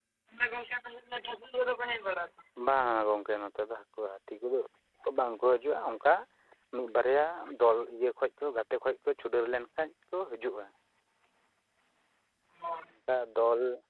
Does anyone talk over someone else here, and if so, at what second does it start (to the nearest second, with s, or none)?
none